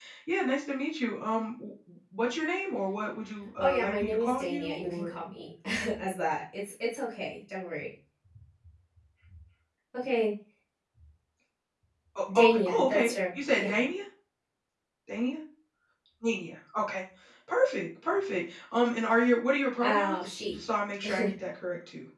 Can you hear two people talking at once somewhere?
Yes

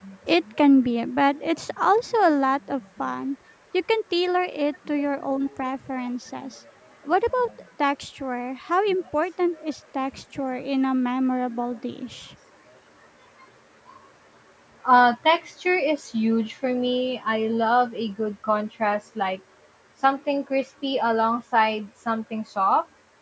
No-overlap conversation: Yes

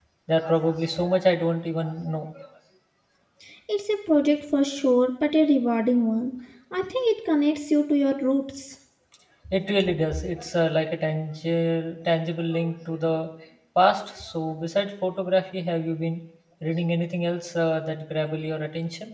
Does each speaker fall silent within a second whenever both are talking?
Yes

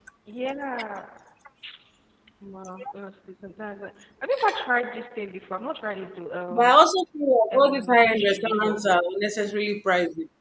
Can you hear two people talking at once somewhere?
Yes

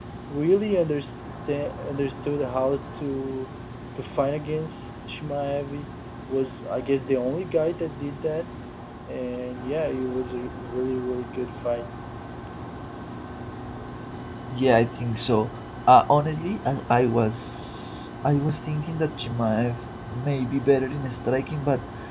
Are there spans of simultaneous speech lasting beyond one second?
No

